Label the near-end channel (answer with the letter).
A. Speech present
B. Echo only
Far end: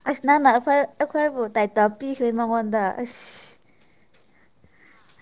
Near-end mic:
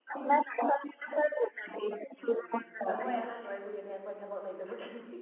A